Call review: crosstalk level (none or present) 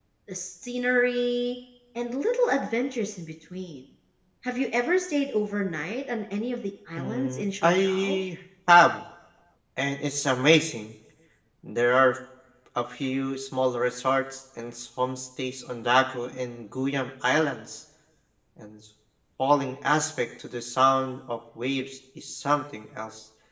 present